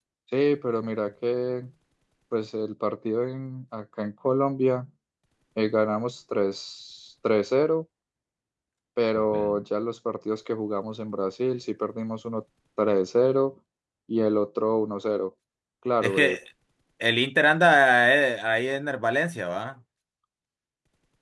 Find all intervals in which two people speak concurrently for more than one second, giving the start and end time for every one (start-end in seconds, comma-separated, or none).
none